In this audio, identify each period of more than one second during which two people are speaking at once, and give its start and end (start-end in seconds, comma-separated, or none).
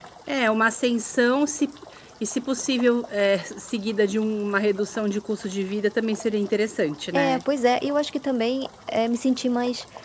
none